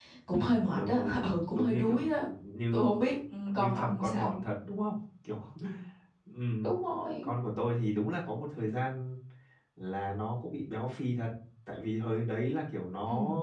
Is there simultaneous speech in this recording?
Yes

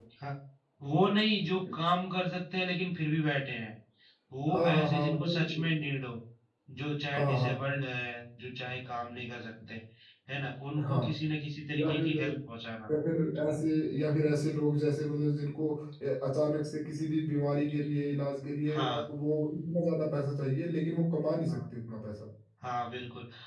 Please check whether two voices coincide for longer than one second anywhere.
Yes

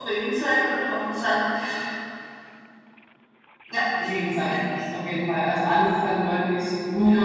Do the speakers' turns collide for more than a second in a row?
No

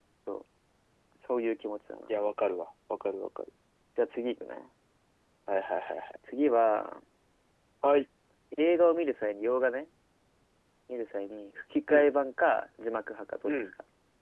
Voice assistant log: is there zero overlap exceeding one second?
Yes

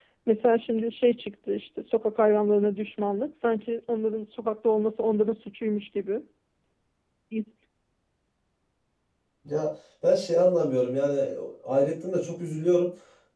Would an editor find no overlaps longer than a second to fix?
Yes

